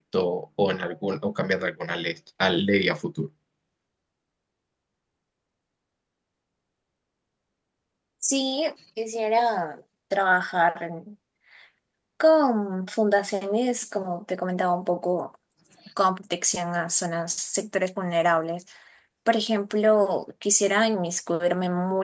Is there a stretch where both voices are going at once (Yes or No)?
No